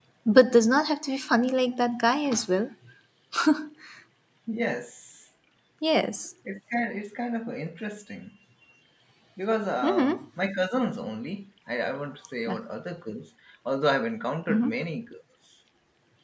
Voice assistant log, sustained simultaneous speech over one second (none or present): none